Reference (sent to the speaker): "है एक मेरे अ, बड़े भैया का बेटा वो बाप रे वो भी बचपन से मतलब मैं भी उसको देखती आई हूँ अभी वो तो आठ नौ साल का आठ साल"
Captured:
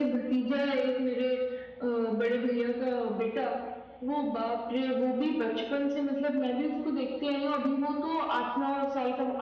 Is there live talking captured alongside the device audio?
No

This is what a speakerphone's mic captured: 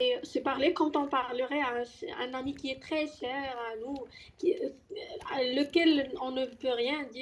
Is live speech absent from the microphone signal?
No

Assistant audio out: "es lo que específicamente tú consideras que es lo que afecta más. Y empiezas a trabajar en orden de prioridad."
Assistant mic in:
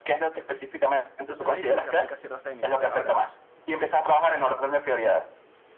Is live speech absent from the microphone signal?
No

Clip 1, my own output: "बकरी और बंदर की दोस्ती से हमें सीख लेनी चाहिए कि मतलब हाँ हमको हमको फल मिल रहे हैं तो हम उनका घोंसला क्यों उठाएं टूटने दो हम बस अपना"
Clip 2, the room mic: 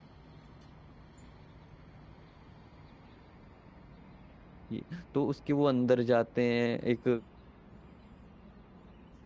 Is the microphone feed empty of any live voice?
No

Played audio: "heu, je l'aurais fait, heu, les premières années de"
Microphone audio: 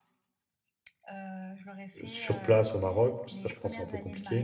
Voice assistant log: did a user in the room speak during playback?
Yes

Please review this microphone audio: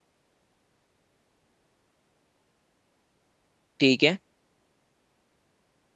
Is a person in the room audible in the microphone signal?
Yes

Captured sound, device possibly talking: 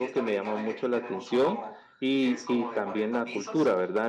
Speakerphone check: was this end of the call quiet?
No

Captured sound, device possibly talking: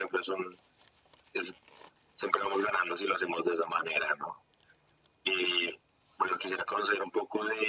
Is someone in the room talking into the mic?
No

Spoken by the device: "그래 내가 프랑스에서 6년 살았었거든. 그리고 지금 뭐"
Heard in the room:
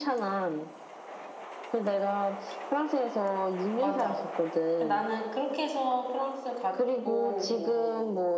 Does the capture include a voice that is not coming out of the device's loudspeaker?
Yes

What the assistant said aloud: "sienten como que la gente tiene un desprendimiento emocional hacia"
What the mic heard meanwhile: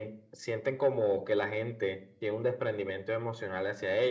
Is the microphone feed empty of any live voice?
Yes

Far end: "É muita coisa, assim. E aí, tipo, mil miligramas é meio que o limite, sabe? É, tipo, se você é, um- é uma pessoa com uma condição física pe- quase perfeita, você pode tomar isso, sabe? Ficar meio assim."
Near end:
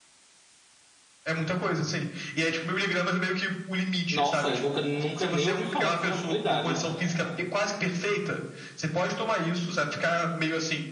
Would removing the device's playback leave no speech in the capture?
No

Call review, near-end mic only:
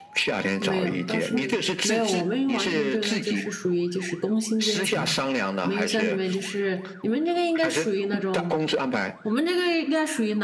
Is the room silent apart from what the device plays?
No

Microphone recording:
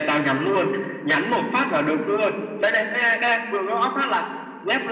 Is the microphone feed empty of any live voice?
Yes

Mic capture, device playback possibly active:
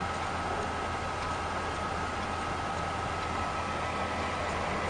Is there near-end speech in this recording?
No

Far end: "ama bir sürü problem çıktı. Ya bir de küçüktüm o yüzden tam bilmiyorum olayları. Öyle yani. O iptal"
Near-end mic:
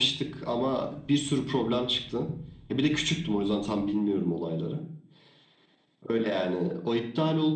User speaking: No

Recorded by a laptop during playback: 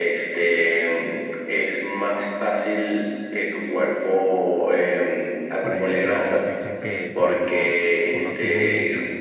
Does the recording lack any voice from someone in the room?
No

